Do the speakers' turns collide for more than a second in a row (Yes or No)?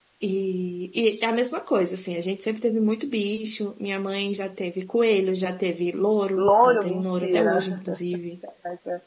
Yes